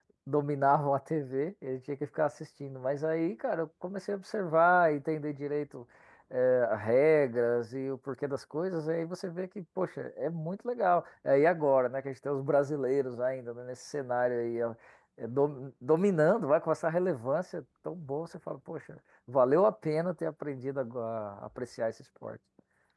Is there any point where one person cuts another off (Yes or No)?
No